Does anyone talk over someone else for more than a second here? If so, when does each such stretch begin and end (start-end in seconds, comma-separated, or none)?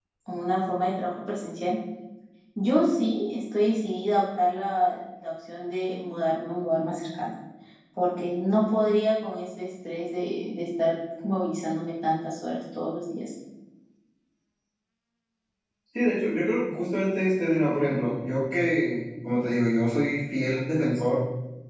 none